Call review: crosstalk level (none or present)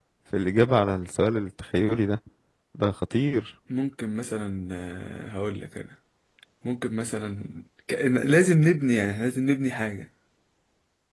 none